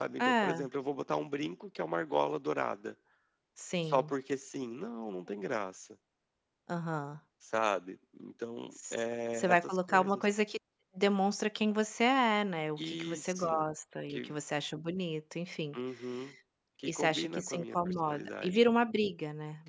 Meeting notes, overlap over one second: present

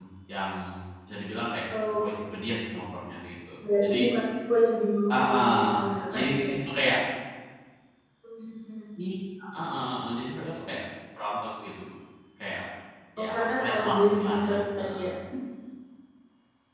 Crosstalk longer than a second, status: present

